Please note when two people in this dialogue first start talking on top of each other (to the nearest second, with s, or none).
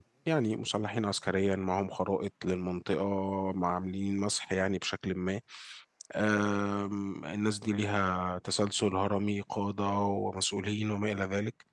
none